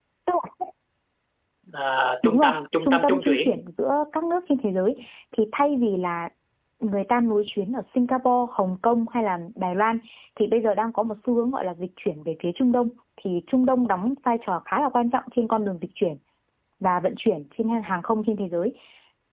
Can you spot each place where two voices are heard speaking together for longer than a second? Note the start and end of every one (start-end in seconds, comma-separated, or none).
2.2-3.5